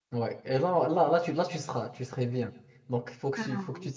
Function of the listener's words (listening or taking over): listening